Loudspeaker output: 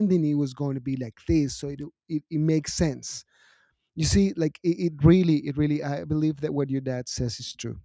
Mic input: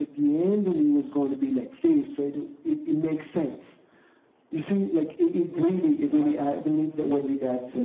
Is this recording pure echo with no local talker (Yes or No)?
No